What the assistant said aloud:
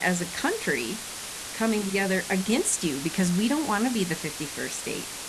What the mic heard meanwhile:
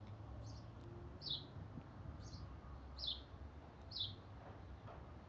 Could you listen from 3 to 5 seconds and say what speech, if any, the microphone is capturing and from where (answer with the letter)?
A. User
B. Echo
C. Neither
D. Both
C